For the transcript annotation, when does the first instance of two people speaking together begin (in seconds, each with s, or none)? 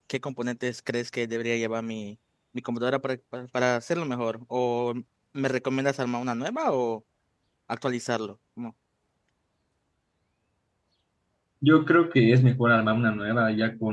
none